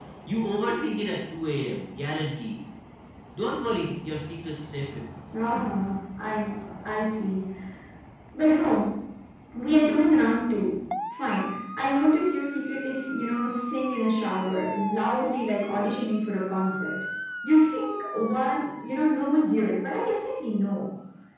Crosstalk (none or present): none